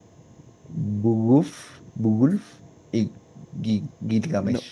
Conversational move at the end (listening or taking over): taking over